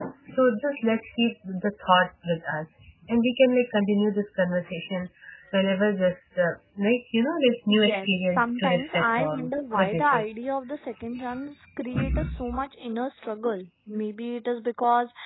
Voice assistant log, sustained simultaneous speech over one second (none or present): present